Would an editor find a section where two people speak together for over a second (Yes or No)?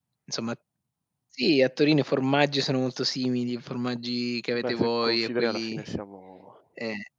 Yes